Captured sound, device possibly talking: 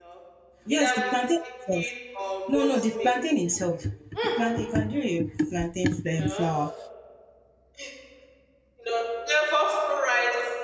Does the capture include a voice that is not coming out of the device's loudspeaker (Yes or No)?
Yes